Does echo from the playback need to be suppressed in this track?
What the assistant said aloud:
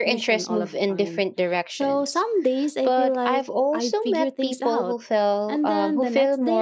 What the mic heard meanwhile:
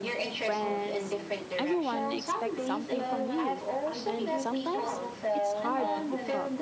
Yes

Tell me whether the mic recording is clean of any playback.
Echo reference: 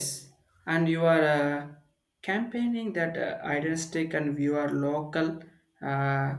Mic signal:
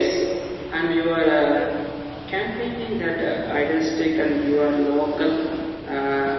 No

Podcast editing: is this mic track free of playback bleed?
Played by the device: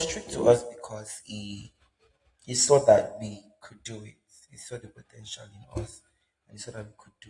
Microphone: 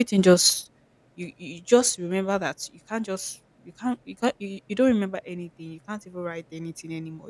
Yes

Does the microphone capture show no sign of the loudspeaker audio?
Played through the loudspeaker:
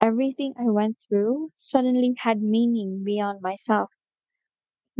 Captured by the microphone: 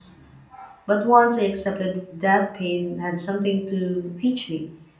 Yes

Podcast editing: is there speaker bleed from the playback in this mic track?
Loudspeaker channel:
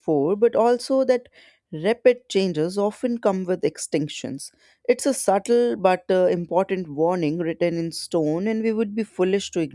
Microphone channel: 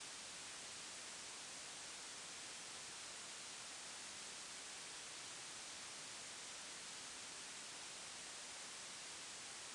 No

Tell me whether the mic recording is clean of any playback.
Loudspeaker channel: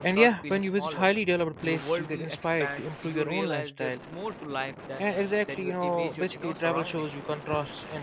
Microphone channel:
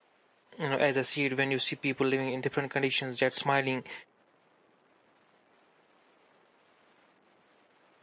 Yes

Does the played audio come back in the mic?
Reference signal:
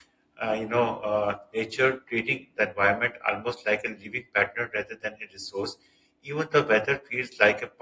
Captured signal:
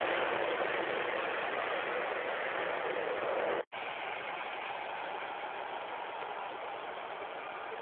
No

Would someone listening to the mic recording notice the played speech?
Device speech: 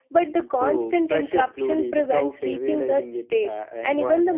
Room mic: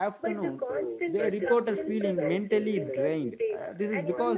Yes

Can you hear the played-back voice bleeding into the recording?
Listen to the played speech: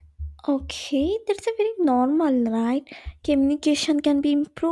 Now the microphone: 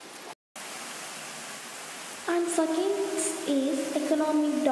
No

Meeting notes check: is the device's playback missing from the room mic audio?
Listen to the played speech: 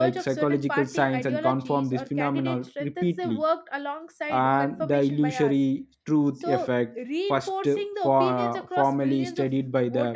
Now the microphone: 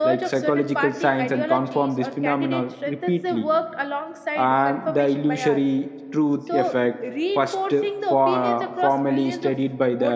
No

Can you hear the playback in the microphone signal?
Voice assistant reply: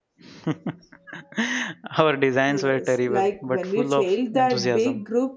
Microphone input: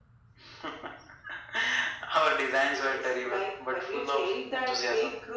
Yes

